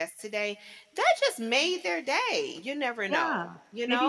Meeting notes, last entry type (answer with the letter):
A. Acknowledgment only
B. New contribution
B